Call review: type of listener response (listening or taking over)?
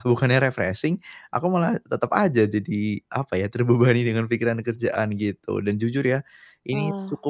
listening